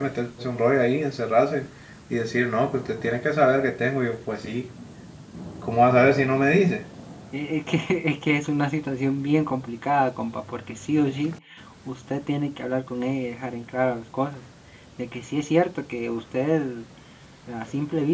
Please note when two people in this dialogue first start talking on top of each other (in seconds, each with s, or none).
none